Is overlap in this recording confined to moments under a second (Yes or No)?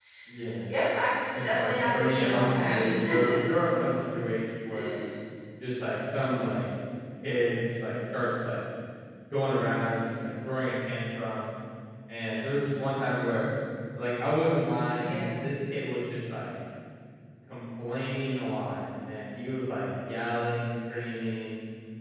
No